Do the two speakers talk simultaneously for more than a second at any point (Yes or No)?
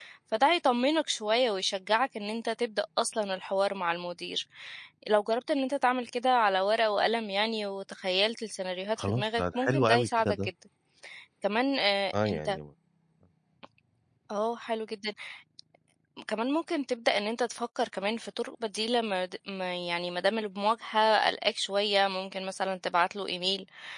Yes